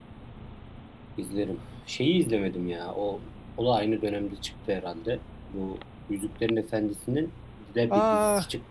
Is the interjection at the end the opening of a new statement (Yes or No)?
Yes